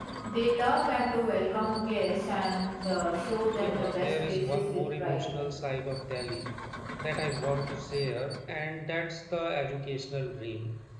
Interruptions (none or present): present